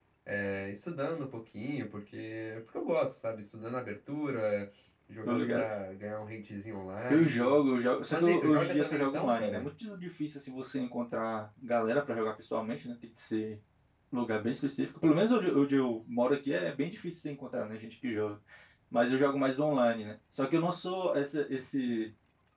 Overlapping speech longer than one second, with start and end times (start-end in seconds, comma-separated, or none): 8.1-9.7